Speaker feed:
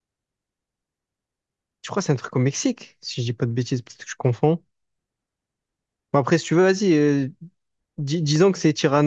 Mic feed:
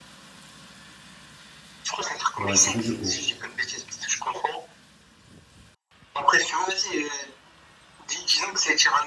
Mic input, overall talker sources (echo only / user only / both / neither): both